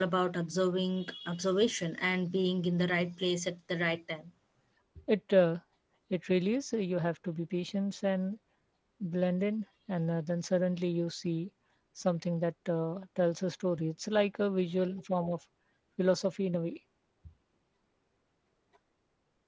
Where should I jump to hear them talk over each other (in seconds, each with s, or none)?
none